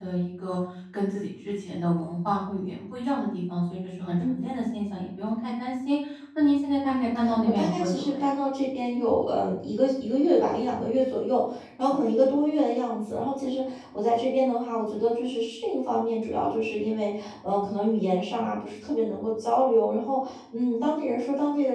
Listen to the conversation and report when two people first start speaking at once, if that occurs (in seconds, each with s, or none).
6.8 s